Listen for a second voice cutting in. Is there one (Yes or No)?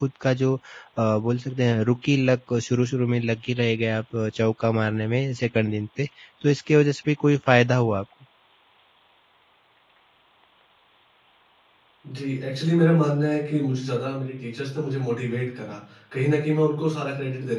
No